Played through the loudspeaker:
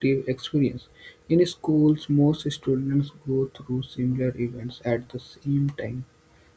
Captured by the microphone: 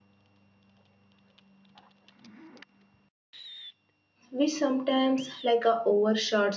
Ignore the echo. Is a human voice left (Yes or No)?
Yes